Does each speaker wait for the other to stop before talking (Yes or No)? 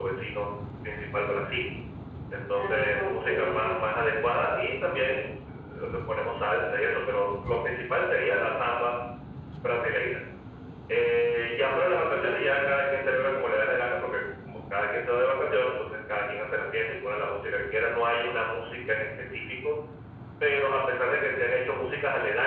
No